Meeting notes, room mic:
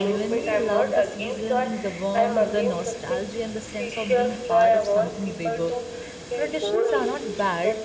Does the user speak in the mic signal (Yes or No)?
Yes